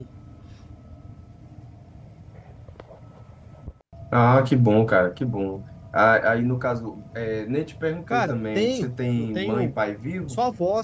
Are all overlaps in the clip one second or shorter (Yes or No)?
No